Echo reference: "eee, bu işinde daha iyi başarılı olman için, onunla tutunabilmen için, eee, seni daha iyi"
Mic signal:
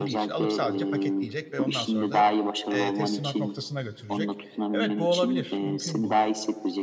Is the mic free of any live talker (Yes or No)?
No